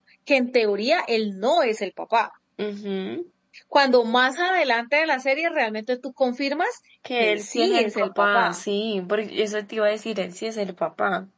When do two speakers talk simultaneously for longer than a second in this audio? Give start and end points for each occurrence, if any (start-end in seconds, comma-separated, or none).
7.2-8.6